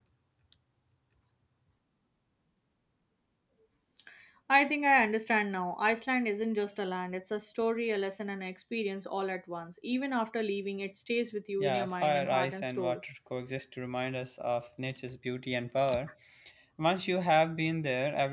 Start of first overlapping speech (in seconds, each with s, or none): 11.6 s